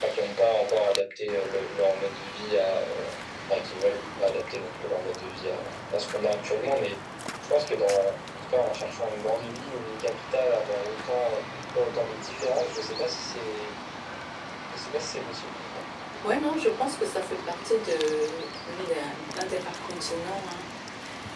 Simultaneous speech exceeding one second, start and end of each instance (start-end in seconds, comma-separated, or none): none